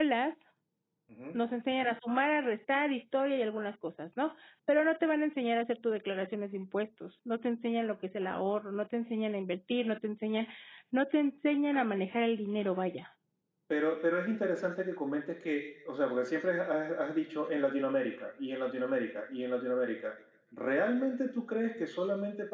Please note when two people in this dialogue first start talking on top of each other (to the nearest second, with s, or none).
none